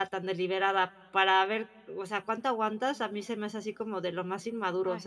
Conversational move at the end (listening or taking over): taking over